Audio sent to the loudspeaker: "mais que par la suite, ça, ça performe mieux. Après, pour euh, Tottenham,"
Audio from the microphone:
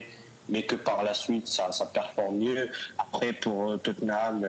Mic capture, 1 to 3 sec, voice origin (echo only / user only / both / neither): echo only